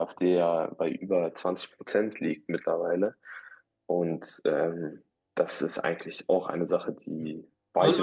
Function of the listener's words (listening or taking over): taking over